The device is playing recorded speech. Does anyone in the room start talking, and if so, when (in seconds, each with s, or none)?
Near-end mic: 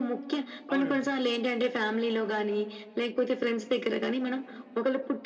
0.7 s